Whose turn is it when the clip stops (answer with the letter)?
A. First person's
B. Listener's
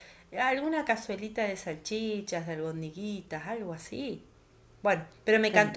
A